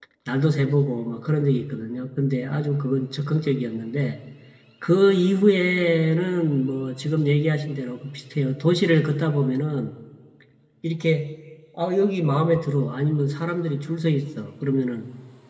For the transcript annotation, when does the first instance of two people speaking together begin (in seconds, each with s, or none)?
none